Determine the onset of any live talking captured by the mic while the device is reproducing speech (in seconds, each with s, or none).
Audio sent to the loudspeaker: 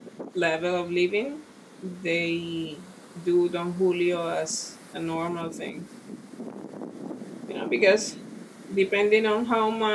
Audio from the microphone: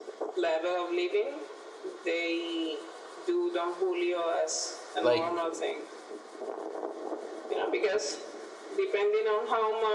5.0 s